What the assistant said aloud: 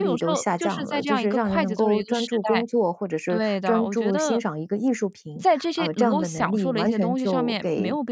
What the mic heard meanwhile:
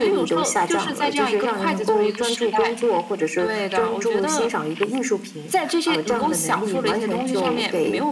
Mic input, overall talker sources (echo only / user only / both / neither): echo only